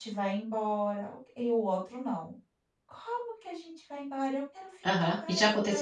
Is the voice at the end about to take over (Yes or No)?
Yes